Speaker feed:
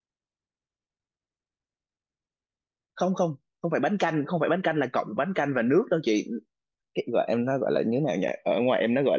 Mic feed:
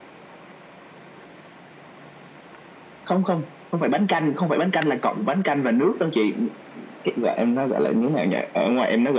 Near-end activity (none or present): none